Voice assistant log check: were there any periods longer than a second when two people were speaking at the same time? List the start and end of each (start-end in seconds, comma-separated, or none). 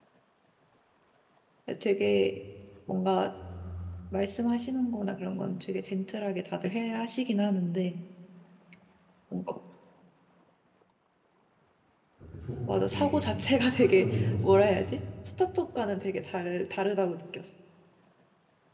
12.9-14.9